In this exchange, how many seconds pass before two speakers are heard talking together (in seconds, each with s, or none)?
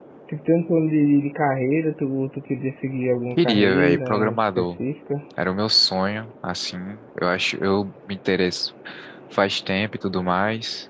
3.3 s